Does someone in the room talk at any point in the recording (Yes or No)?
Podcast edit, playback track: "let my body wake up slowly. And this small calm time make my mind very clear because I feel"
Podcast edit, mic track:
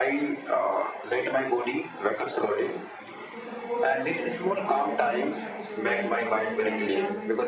Yes